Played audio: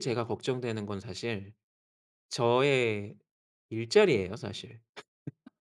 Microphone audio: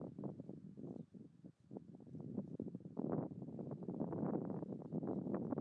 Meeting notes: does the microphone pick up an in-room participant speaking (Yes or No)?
No